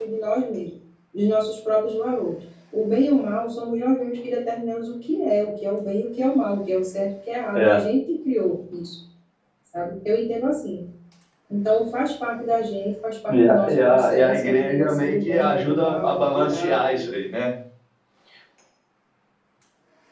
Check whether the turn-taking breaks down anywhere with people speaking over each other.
Yes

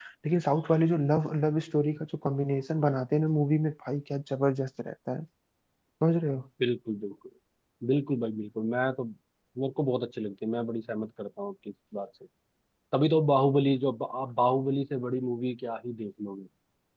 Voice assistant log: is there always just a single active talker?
Yes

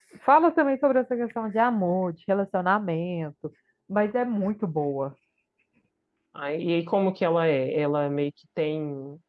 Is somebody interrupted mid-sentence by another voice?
No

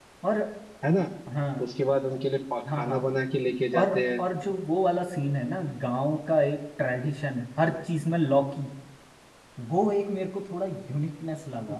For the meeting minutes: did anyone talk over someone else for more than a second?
No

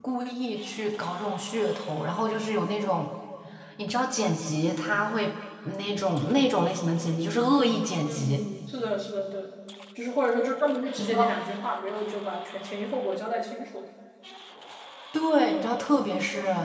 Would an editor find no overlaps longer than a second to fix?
Yes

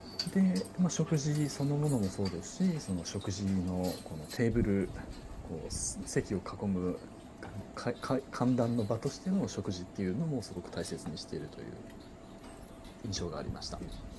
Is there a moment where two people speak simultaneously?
No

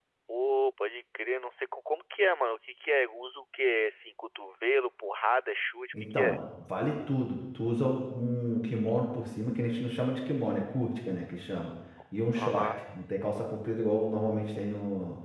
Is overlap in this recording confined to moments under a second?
Yes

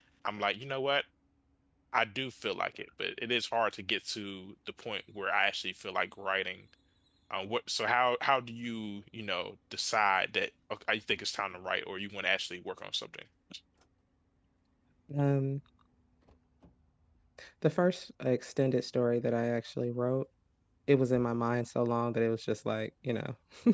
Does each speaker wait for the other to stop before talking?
Yes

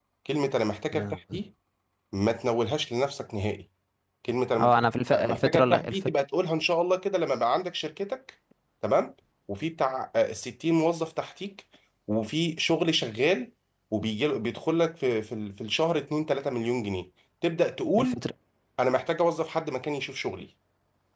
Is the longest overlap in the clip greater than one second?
Yes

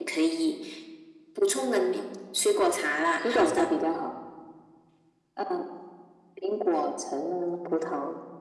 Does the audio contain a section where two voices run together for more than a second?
No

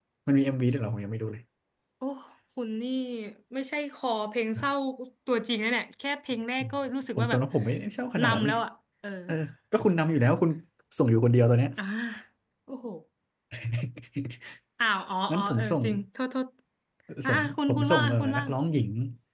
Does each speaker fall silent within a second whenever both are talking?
No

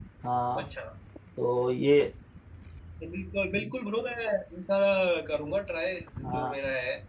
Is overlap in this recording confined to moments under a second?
Yes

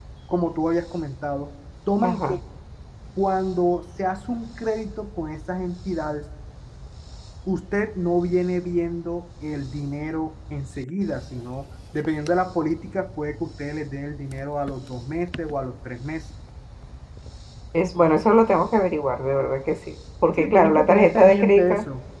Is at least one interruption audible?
Yes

